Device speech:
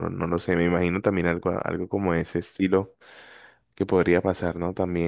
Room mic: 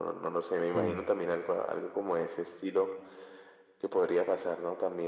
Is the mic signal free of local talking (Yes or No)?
No